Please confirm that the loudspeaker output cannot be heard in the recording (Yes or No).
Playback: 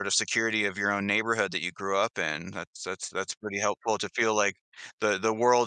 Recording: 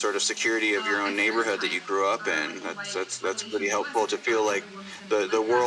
No